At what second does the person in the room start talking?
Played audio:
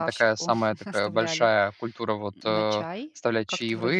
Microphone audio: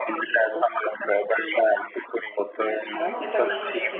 3.0 s

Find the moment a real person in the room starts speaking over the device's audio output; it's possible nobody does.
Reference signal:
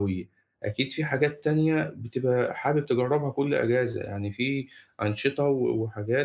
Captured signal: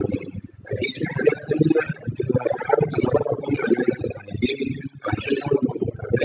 none

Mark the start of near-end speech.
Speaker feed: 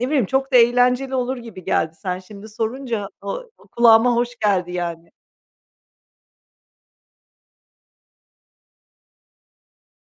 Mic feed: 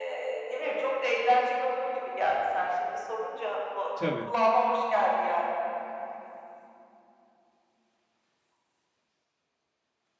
3.9 s

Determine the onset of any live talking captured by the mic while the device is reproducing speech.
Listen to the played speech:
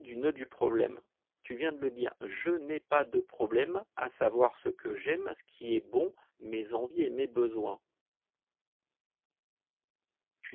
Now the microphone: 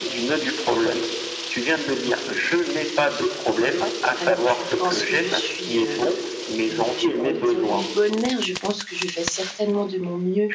4.2 s

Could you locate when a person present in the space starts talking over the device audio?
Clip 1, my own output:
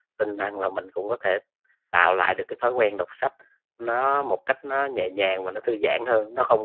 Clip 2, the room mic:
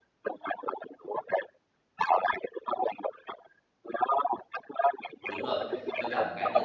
5.2 s

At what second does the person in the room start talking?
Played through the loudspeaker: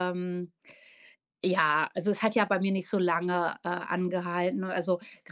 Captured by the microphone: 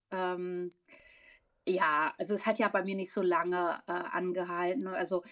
none

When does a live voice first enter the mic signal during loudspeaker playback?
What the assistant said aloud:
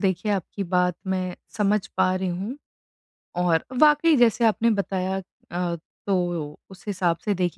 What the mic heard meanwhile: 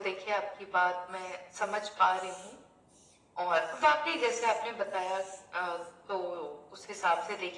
none

